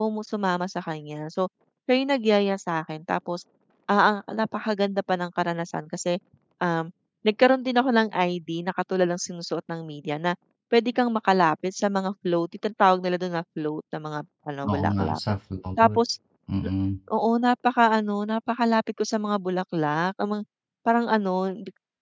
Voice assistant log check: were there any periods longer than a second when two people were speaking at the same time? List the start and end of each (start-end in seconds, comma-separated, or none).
none